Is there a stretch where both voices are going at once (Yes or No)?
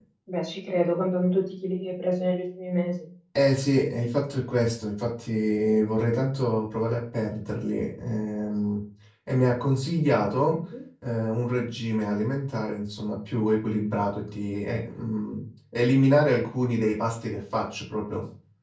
No